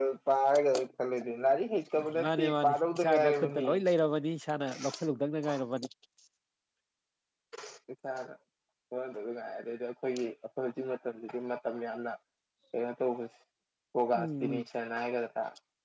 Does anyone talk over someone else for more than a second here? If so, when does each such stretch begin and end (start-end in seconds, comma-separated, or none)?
2.2-3.7